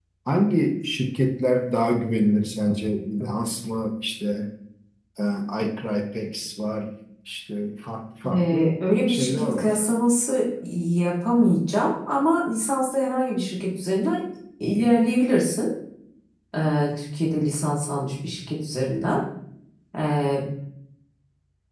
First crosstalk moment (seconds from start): 8.2 s

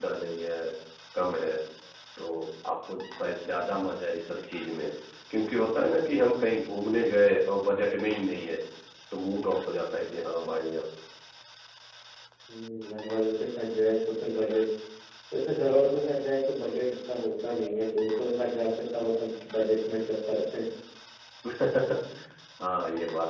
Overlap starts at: none

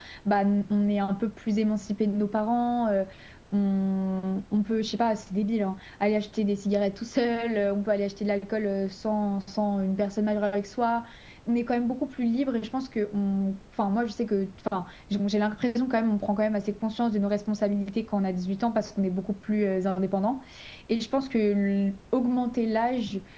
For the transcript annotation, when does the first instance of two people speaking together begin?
none

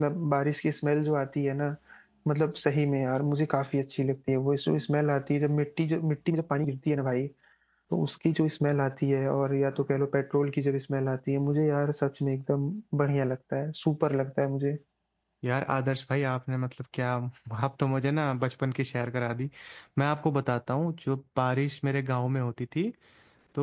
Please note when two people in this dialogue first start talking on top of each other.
none

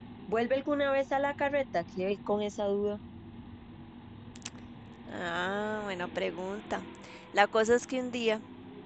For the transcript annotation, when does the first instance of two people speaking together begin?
none

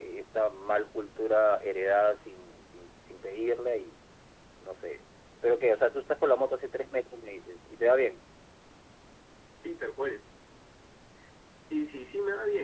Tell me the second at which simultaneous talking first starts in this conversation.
none

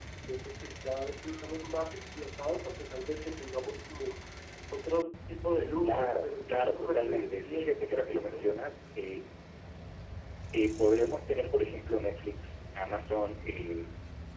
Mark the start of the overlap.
5.8 s

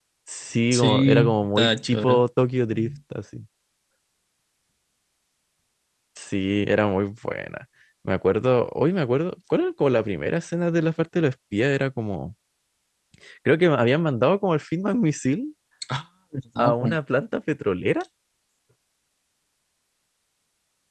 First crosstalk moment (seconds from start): 0.7 s

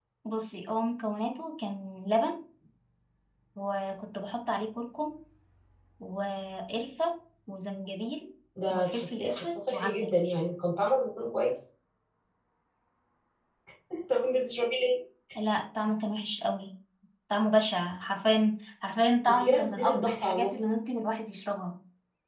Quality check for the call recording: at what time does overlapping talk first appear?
8.7 s

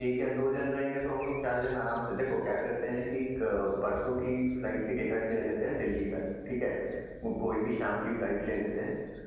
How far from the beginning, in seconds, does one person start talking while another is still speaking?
none

